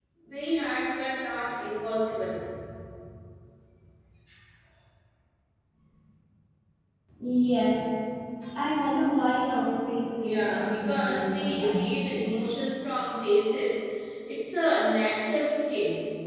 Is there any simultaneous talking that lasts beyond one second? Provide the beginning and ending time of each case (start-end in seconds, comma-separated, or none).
10.2-12.0